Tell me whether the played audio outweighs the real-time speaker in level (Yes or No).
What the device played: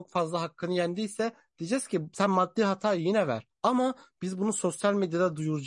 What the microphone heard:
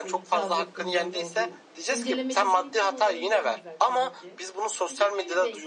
Yes